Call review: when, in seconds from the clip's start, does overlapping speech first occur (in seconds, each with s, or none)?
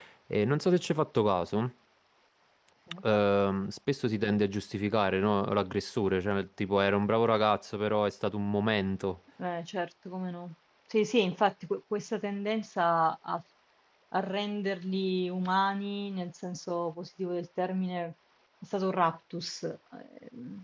none